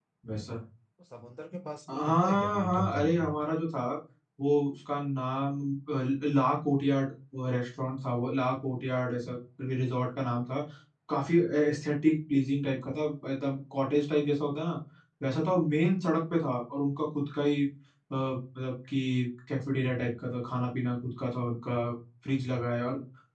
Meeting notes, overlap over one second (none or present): present